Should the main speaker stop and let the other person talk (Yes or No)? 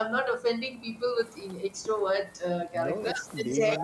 Yes